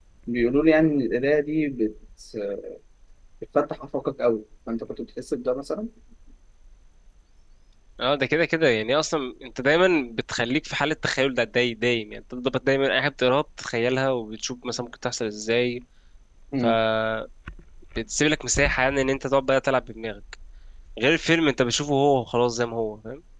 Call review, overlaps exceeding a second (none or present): none